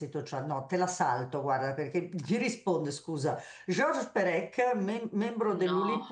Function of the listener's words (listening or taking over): listening